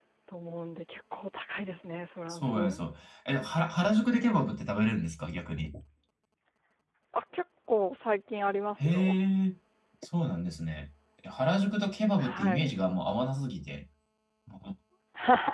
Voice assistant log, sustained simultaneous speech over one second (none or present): none